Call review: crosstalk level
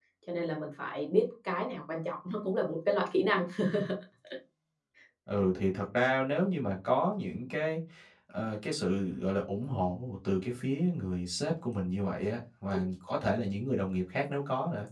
none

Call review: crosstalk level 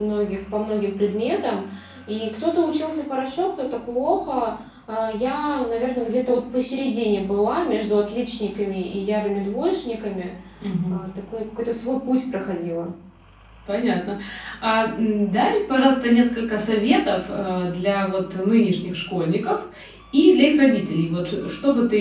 none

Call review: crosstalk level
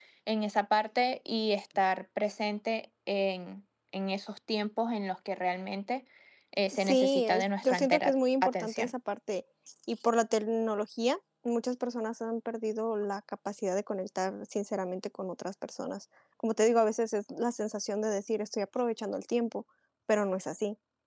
present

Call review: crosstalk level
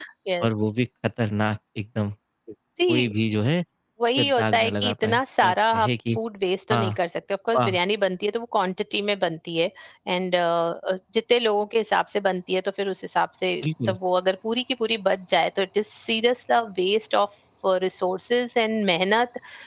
present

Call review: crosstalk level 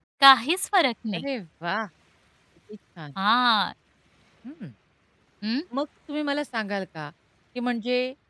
none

